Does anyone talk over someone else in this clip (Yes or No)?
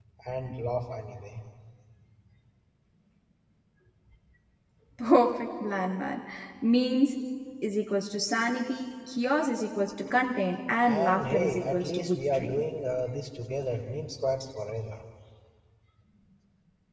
Yes